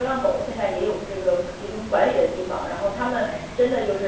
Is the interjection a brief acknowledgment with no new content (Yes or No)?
Yes